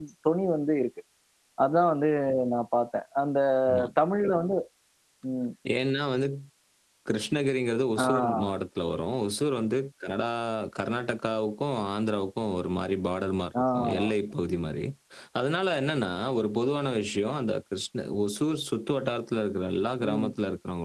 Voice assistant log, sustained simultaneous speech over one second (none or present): none